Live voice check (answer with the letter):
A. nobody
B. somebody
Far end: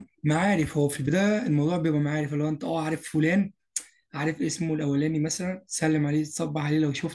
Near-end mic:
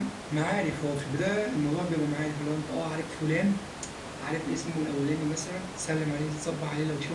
A